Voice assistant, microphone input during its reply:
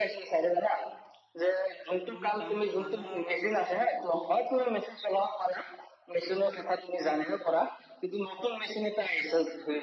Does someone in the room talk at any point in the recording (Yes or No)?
Yes